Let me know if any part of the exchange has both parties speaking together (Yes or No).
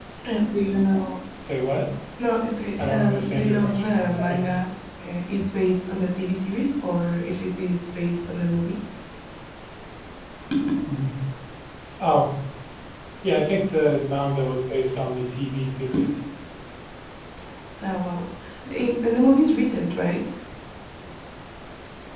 Yes